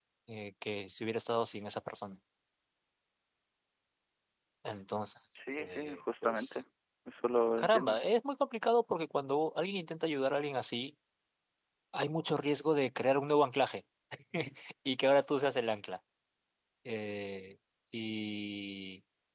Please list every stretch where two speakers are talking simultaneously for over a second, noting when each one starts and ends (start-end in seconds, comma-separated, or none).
5.3-6.6